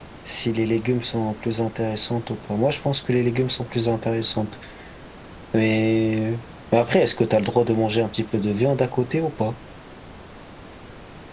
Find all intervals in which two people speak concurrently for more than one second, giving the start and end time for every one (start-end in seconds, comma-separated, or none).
none